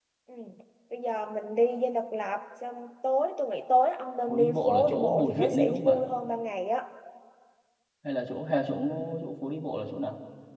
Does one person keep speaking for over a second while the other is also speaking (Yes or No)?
Yes